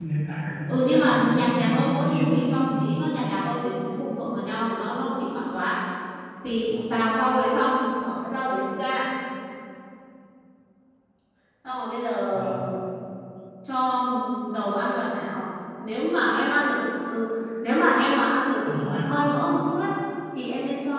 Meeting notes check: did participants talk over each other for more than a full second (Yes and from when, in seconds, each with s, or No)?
Yes, from 0.7 s